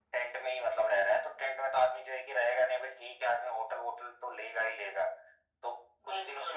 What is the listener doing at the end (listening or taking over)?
listening